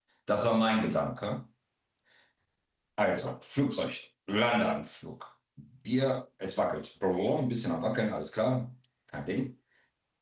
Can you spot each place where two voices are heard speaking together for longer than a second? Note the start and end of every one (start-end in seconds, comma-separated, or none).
none